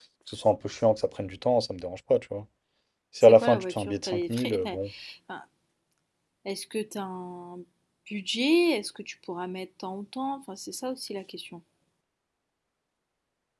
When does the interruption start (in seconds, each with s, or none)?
3.2 s